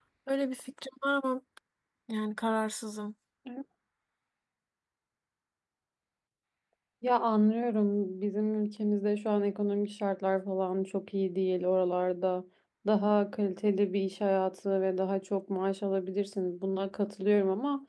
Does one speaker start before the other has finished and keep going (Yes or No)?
No